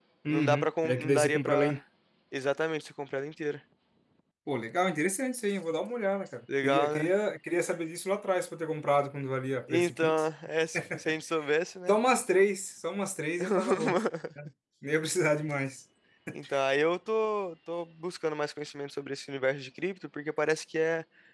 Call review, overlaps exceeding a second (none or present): present